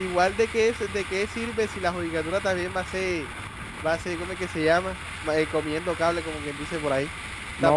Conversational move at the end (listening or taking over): taking over